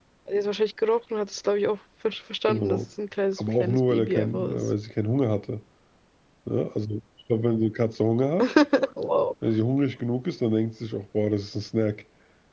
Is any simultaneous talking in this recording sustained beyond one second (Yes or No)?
Yes